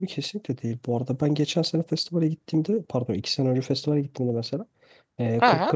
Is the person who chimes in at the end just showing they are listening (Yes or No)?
Yes